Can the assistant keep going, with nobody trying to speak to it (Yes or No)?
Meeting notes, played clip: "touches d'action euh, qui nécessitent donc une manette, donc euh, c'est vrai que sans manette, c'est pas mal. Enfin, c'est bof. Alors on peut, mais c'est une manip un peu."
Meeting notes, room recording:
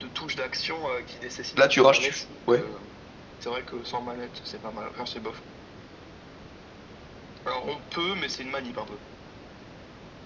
No